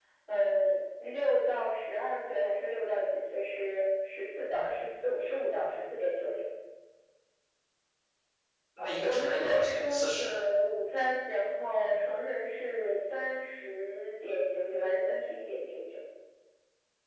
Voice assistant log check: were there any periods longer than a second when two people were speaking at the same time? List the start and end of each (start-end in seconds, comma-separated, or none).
8.8-10.3